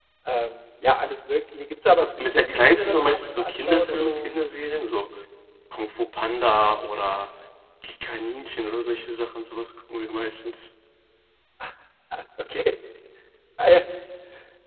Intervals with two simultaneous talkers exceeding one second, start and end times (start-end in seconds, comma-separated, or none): 2.2-4.3